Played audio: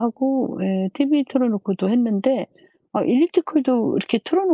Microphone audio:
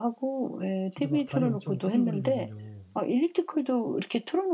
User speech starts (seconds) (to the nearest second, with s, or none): 1 s